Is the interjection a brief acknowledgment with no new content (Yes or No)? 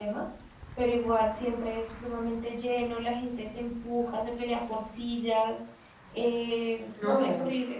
Yes